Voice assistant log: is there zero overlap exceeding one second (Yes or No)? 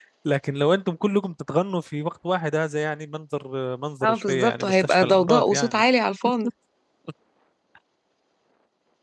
No